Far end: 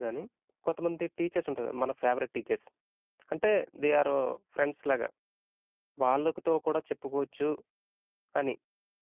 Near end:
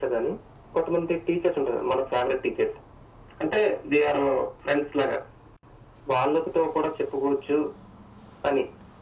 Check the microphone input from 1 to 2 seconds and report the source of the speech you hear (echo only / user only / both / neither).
echo only